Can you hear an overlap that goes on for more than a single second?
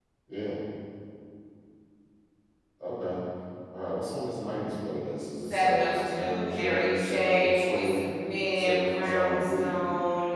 Yes, from 5.4 s

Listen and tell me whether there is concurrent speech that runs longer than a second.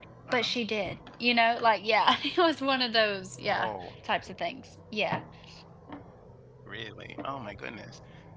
No

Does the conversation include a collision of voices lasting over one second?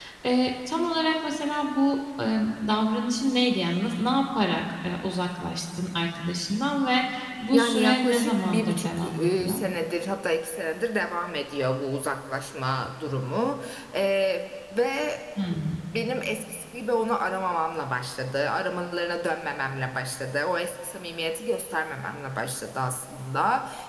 Yes, from 7.5 s

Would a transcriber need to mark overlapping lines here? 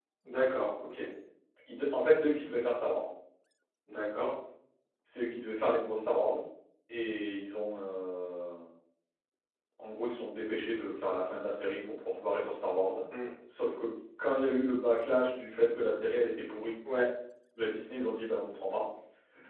No

